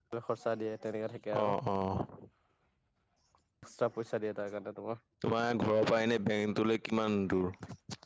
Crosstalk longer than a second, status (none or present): none